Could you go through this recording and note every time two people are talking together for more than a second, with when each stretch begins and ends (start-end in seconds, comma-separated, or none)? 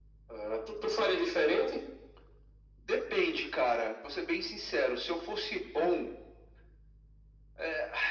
none